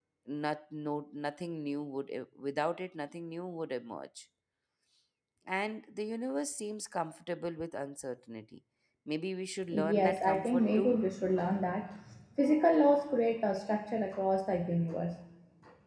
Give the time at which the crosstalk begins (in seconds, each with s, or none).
9.7 s